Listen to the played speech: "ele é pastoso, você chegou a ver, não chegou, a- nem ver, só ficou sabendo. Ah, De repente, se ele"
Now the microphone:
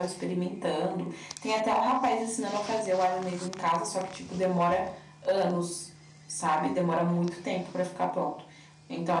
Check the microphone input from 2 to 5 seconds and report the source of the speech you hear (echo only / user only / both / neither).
user only